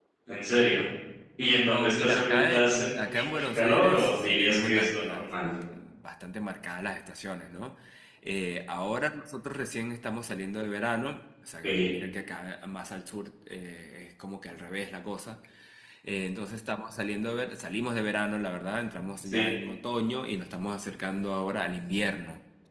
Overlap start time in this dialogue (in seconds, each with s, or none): 1.6 s